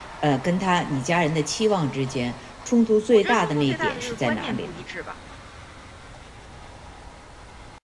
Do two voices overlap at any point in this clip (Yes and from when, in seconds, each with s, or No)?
Yes, from 3.1 s